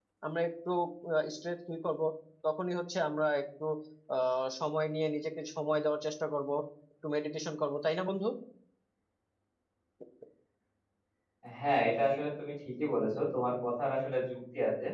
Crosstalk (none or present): none